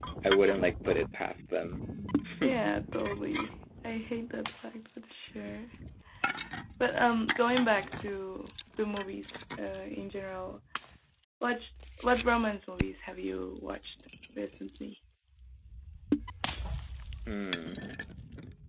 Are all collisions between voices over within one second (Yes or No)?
Yes